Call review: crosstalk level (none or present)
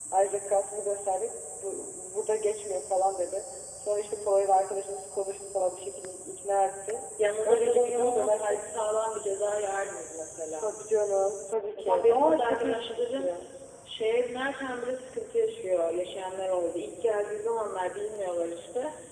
present